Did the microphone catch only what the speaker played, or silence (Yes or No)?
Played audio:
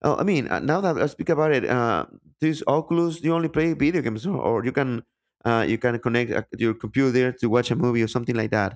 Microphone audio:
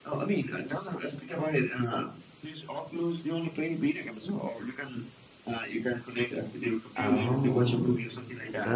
No